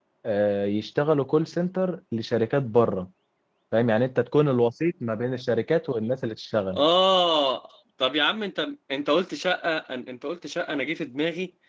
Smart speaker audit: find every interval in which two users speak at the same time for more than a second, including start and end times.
none

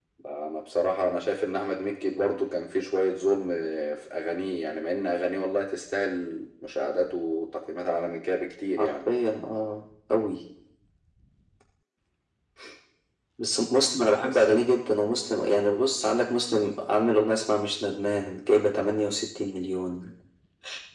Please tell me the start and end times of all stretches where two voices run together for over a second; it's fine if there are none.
none

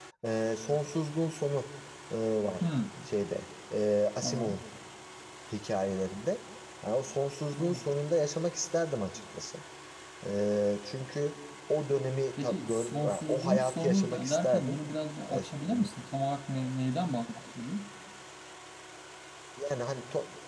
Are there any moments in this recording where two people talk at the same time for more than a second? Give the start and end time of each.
12.4-14.8

